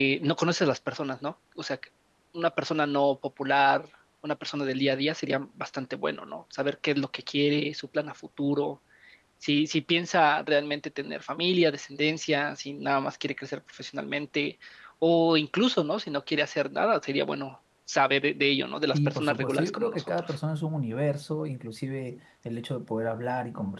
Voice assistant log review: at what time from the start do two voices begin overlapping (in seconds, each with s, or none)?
18.9 s